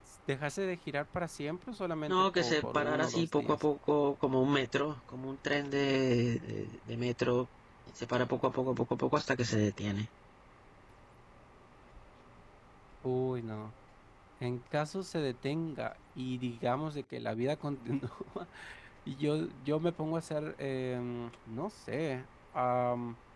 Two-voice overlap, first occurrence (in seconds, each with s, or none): 2.1 s